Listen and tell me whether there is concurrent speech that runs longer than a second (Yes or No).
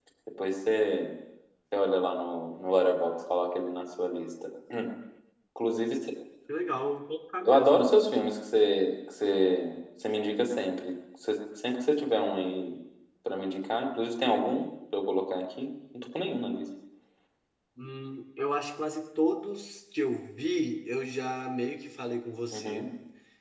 No